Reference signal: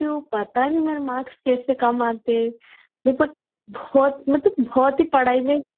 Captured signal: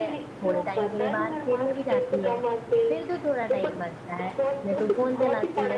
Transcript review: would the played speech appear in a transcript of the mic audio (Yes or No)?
Yes